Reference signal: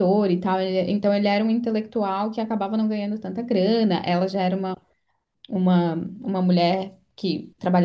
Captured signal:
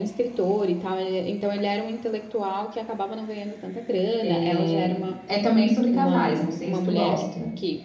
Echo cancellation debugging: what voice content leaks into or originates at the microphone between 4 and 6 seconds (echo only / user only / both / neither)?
both